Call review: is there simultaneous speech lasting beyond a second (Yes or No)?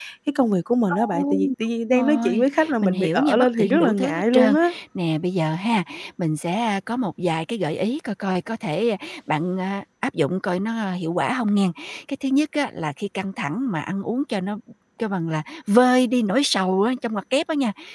Yes